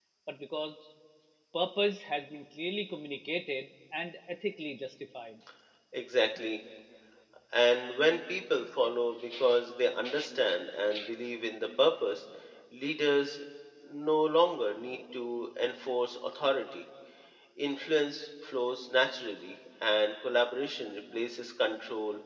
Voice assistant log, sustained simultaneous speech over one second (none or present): none